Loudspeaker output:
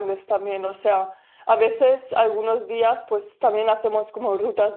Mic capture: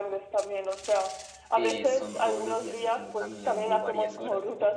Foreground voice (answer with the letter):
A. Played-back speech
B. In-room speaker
A